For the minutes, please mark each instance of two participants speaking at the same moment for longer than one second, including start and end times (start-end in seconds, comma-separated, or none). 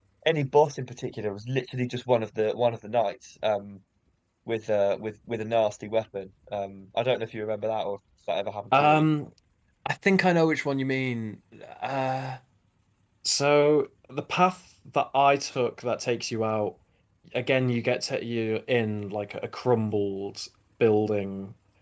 none